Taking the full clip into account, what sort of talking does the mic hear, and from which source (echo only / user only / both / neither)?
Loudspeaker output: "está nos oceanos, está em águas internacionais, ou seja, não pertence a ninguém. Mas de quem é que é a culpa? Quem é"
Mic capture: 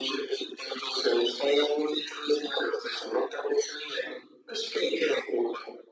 echo only